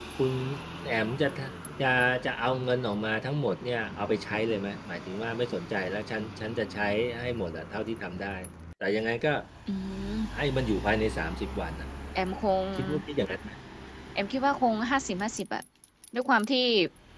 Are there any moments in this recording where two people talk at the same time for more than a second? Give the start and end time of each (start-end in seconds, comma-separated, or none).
none